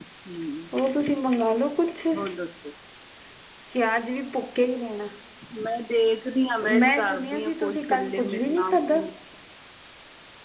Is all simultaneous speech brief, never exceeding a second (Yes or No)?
No